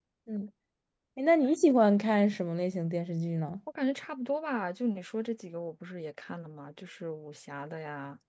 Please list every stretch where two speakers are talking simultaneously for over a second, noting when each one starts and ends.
none

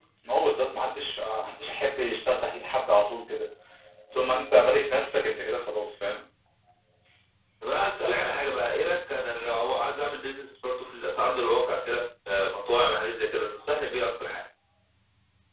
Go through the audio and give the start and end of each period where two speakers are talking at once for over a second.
none

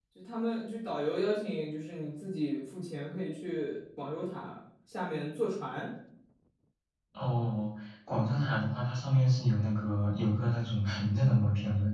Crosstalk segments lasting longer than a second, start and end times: none

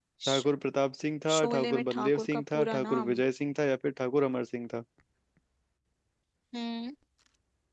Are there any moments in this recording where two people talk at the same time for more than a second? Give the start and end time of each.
1.4-3.1

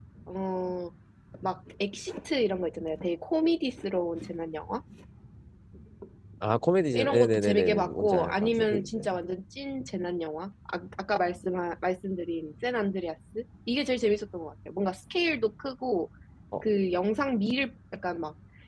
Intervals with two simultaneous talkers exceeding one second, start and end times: 6.9-9.1

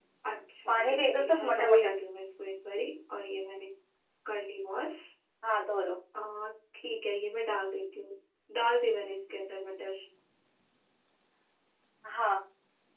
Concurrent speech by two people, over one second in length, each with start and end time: 0.7-2.0

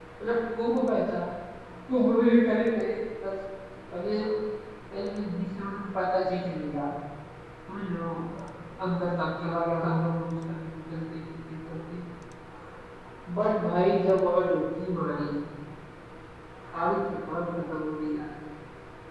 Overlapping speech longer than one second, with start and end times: none

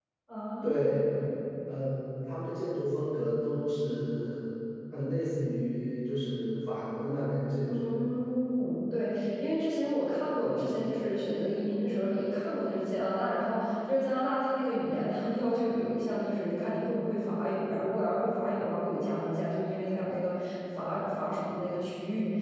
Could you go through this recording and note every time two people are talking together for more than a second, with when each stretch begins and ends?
none

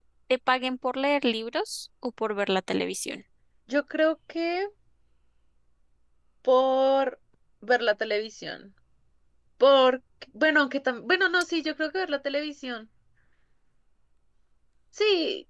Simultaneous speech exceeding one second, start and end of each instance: none

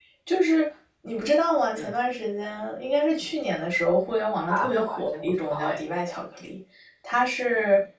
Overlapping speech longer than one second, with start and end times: 4.5-5.8

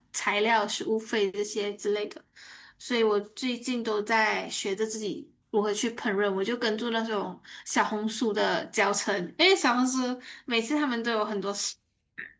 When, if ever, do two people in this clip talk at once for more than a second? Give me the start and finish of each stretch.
none

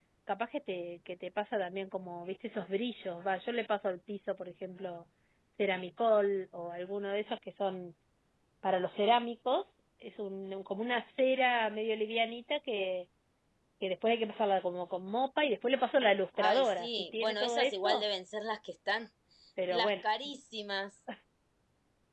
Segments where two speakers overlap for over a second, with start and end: 16.4-18.0

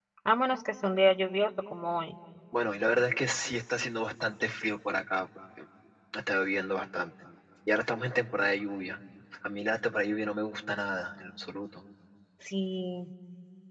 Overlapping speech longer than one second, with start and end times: none

